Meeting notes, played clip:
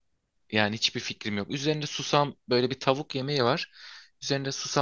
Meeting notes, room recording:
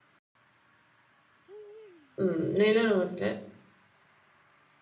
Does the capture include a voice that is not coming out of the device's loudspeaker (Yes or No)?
Yes